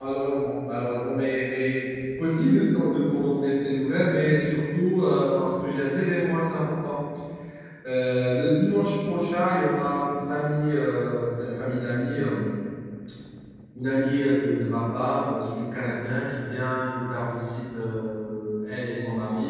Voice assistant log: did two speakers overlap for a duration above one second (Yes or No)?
No